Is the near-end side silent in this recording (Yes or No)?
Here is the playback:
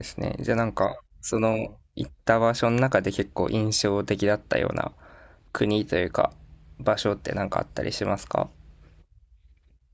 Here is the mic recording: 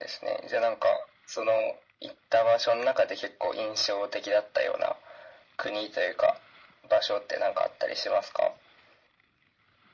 Yes